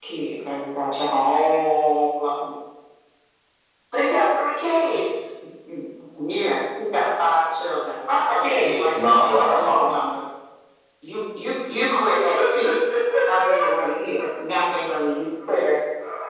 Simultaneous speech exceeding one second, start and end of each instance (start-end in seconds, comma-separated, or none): 8.3-9.9